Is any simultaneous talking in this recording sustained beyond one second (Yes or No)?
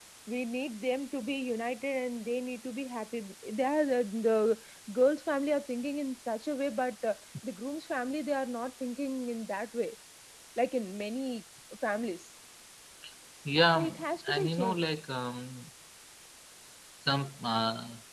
Yes